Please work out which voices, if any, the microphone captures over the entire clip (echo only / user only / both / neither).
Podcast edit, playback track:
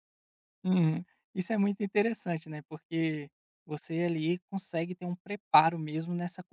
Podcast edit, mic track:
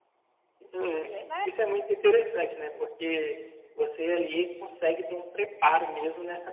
both